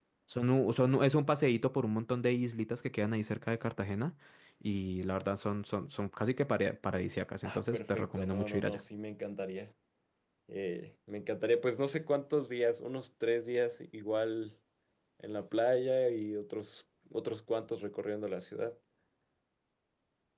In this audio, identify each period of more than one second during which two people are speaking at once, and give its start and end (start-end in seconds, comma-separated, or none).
7.4-8.8